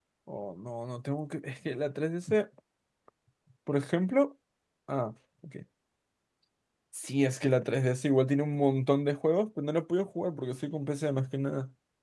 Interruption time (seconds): none

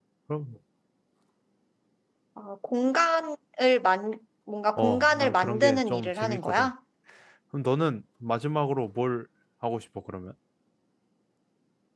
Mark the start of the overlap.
5 s

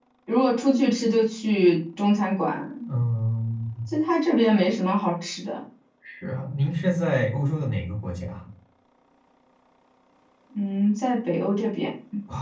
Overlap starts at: none

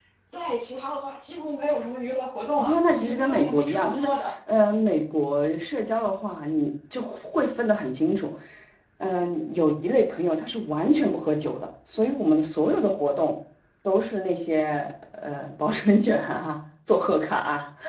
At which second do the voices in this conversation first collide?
3 s

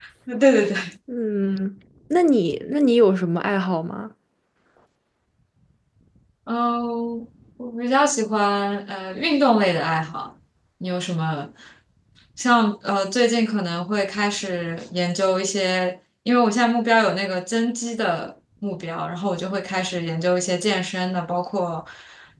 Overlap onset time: none

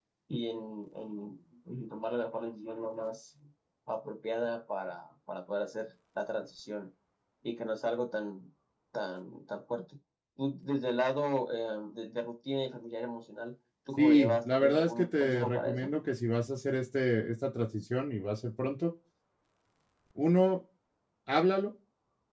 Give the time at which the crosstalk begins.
14 s

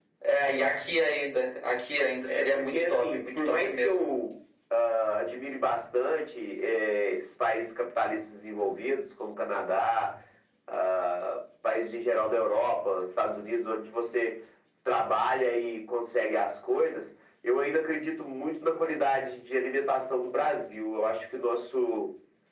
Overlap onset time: 2 s

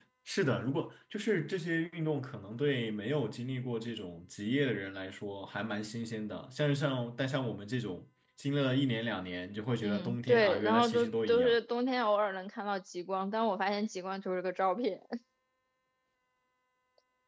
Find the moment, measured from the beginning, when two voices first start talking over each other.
10 s

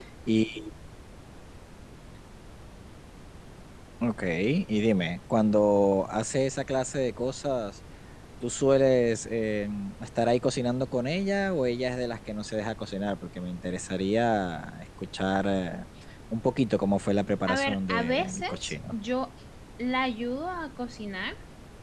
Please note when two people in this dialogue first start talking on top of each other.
17 s

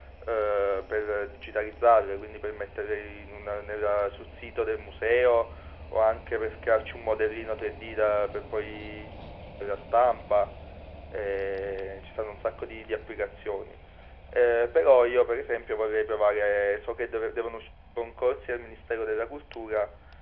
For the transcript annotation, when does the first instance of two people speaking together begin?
none

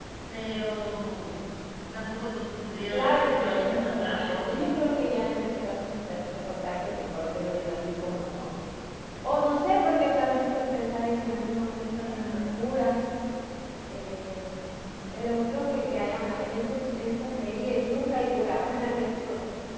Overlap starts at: 3 s

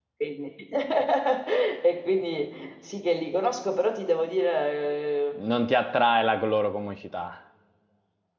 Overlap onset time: none

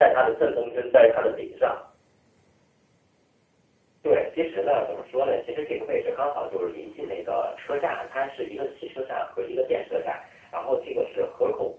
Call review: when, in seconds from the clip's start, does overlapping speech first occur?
none

